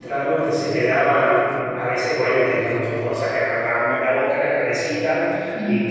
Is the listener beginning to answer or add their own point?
No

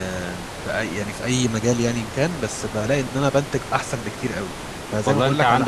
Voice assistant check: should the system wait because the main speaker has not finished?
No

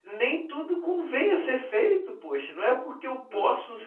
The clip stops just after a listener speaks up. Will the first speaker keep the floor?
Yes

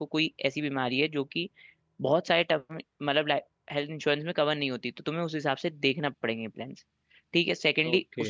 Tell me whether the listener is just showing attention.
Yes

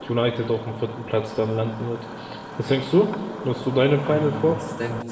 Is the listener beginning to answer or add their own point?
Yes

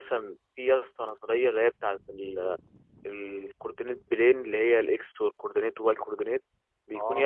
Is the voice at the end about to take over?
No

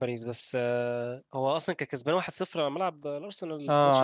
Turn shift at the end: Yes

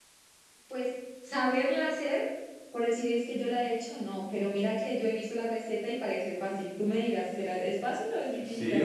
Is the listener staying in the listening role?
No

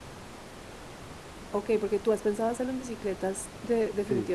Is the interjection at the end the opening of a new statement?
Yes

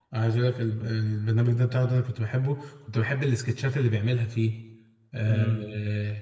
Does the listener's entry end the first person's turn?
Yes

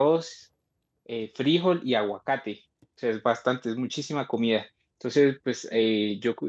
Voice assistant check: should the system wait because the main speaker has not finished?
Yes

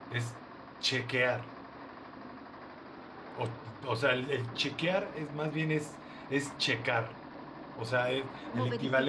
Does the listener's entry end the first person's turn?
No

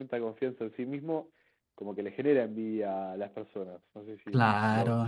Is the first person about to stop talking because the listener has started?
Yes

